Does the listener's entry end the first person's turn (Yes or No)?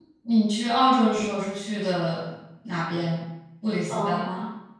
Yes